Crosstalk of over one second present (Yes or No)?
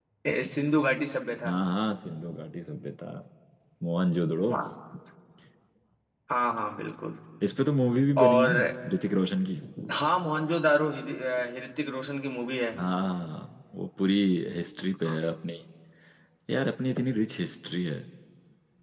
No